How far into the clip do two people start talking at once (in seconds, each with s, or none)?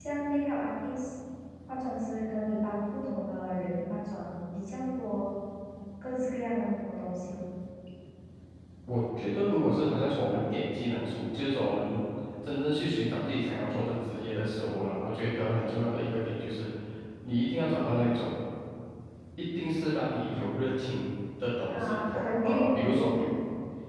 21.7 s